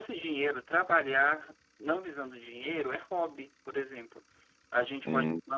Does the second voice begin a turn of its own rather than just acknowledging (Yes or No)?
No